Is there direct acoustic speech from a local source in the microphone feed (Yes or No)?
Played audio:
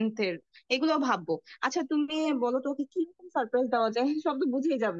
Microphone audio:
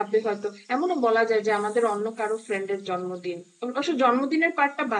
Yes